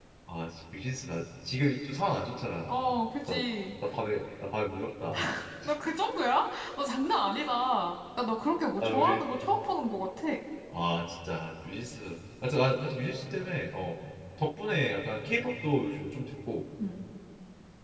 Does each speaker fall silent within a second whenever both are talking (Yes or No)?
Yes